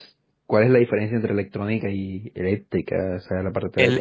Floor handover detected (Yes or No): Yes